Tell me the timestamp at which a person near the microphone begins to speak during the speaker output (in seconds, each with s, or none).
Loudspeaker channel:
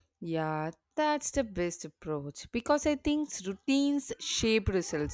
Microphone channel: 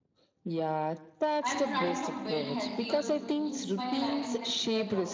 1.4 s